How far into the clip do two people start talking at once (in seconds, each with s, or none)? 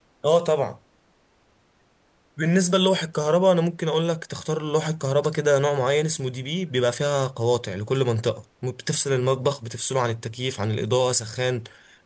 none